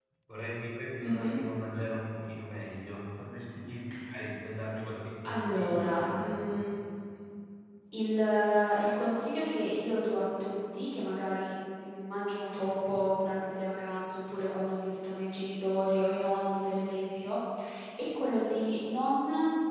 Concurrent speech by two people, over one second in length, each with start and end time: 5.2-6.4

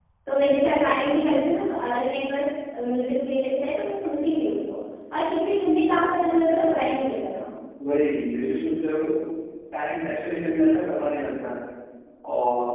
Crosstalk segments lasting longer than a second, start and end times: none

